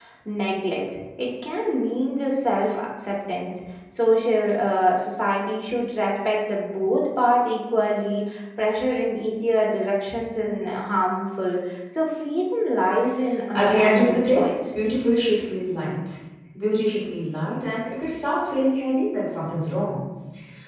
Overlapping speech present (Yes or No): Yes